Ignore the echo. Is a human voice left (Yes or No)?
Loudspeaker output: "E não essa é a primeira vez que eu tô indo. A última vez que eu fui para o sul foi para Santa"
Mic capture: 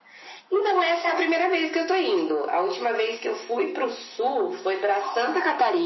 No